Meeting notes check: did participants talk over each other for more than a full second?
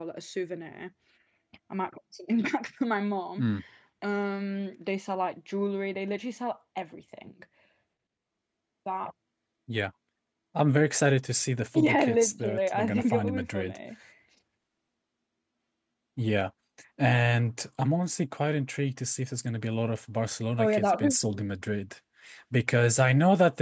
Yes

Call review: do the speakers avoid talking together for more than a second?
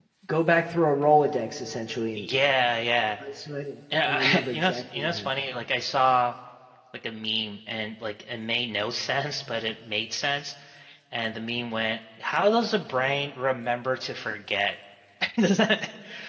No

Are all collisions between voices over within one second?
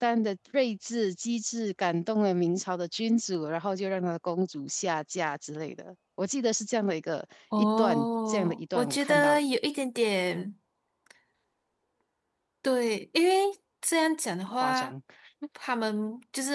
No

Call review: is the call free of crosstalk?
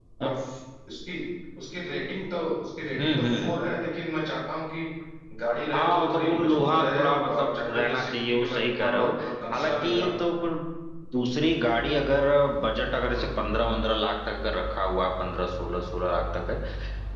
No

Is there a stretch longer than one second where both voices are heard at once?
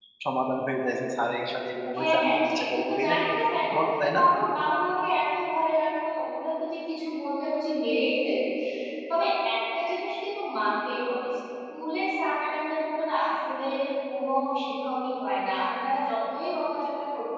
Yes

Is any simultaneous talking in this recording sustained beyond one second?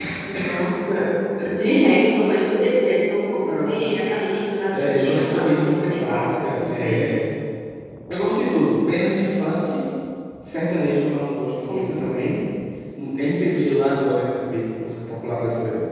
Yes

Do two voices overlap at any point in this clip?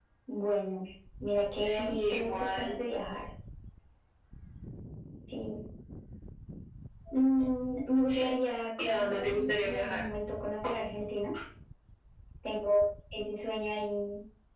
Yes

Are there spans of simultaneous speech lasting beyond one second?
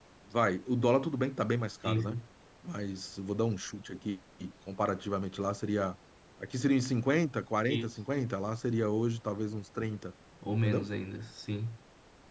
No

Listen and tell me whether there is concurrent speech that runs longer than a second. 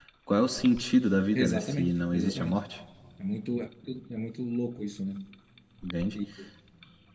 Yes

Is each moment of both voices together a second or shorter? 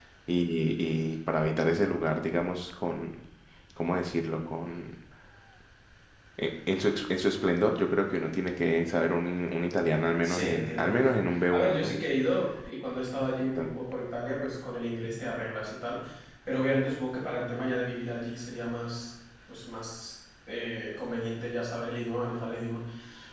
No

